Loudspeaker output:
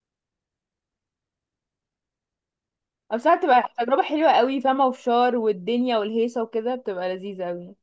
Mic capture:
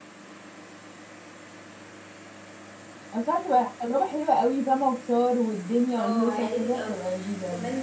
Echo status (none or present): present